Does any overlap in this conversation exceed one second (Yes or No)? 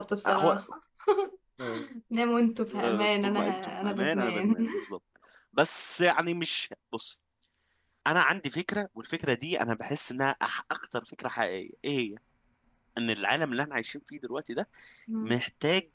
Yes